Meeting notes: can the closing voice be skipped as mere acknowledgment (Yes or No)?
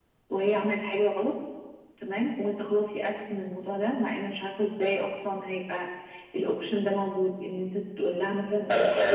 No